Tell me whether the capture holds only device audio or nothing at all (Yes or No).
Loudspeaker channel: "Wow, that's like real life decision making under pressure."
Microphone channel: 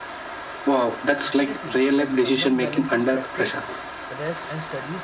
No